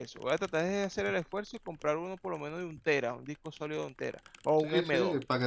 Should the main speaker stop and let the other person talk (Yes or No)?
Yes